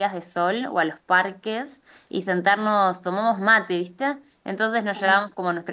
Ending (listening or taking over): listening